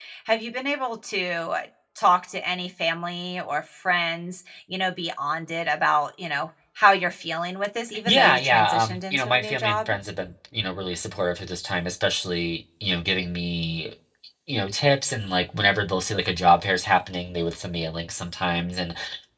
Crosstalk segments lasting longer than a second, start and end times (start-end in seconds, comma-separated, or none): 8.1-9.9